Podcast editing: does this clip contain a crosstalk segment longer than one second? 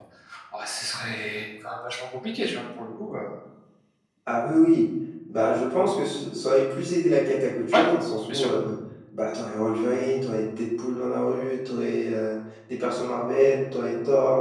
No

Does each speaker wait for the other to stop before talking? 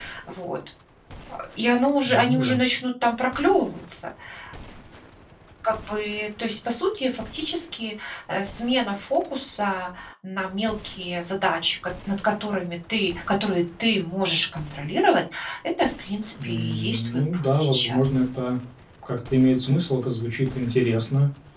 No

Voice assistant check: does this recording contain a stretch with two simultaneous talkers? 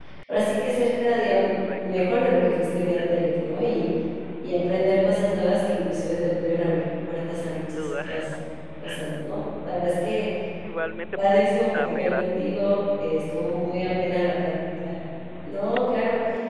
Yes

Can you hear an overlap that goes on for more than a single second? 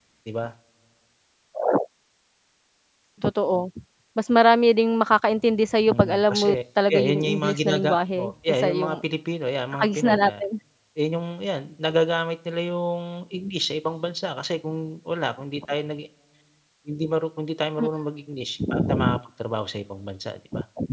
Yes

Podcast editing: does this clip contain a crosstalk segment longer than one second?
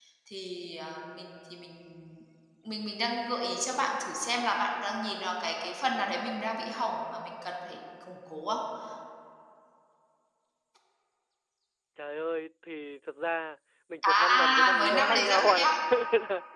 Yes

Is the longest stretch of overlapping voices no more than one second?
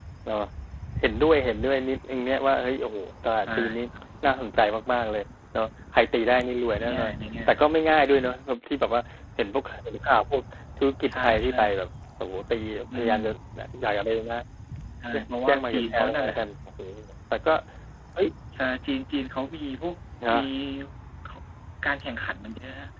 No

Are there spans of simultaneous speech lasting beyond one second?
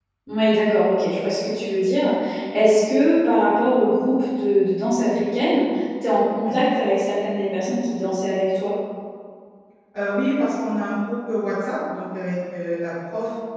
No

